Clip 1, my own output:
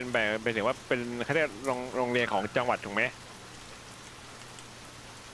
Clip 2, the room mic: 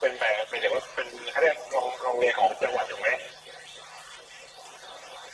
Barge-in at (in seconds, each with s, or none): none